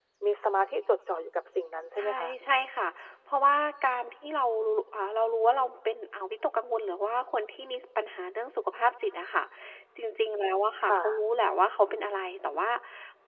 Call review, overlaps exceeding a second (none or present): none